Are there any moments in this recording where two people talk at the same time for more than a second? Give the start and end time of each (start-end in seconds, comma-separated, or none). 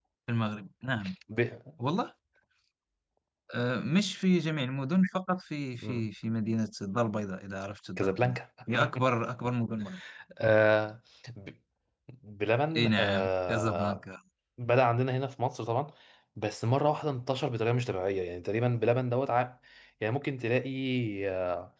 12.8-14.0